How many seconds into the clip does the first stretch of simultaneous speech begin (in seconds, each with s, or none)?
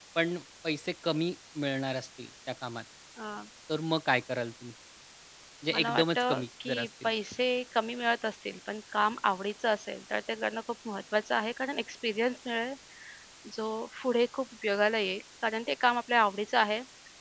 5.7 s